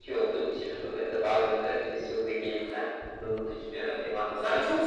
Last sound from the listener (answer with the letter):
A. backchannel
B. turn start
B